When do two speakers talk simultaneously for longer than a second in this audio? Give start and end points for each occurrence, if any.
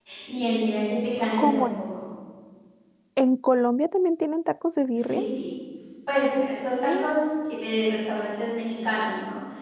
none

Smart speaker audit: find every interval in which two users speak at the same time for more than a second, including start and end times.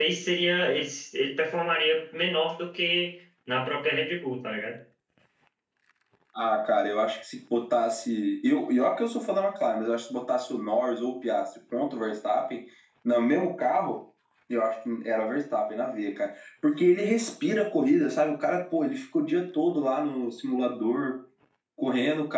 none

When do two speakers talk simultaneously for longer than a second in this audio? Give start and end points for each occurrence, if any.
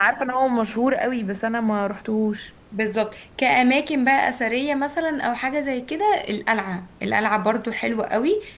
none

